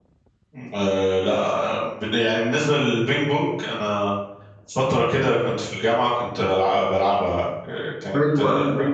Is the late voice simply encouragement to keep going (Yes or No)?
No